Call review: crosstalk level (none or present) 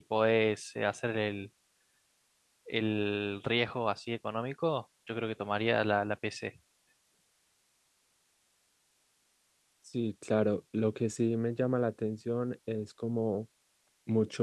none